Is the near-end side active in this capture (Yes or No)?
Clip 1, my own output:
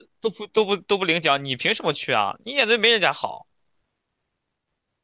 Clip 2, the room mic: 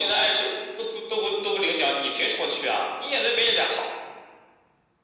No